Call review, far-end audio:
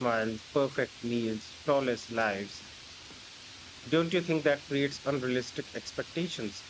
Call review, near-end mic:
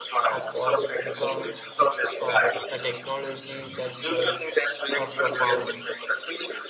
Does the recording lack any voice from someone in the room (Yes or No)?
No